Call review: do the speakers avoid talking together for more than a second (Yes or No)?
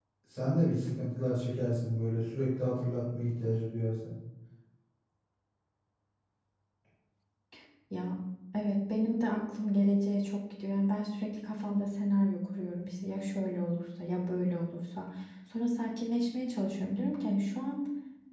Yes